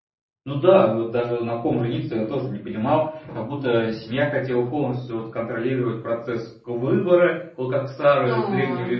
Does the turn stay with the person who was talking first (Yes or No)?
Yes